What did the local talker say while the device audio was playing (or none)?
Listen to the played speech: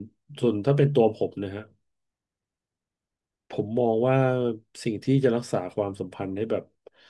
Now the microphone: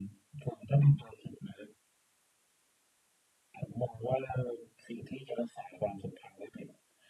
none